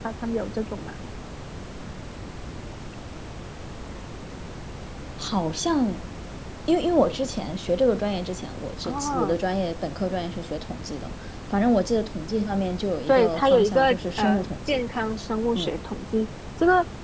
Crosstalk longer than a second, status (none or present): present